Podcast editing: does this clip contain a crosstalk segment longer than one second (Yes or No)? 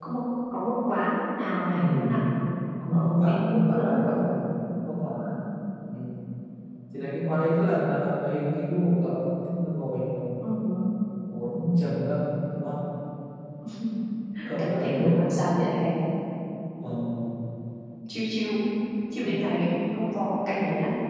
Yes